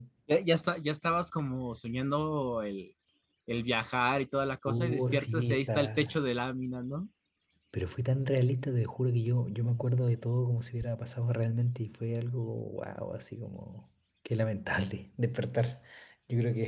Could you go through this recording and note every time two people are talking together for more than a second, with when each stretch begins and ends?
4.7-6.2

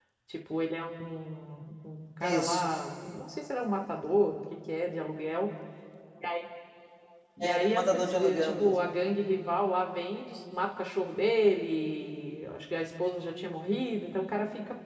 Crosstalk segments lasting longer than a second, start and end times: 7.4-8.8

